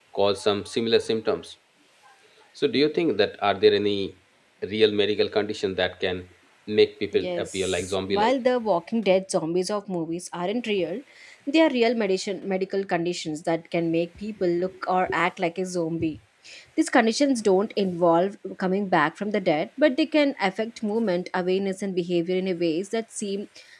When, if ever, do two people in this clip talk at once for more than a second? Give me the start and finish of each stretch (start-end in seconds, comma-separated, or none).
7.1-8.3